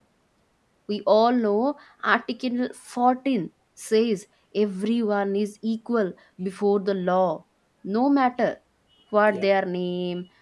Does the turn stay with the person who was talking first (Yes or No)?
Yes